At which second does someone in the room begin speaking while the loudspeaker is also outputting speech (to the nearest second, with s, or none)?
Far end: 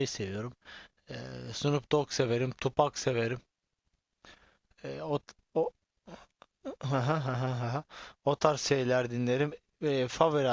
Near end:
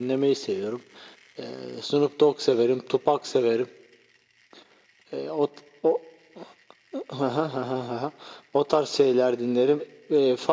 none